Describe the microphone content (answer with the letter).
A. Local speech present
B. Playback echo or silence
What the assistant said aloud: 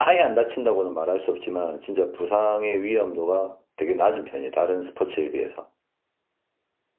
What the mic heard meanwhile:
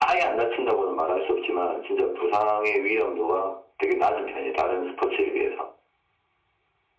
B